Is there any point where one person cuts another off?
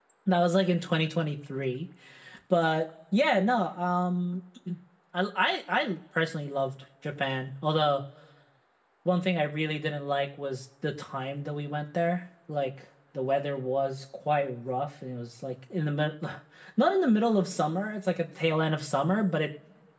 No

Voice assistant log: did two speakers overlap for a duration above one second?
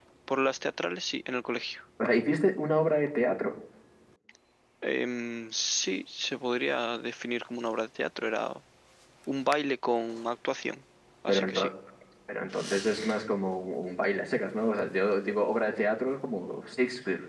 No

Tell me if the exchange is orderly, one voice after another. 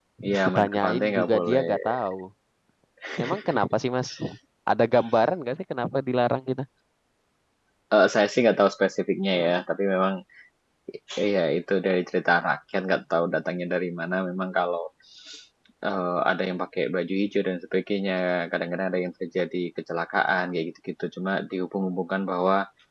No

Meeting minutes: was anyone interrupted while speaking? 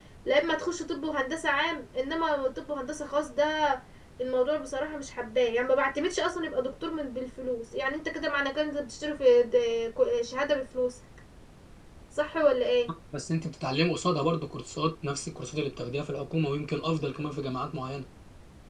No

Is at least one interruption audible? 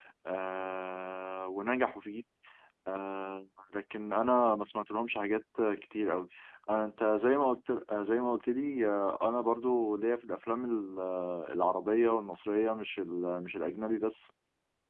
No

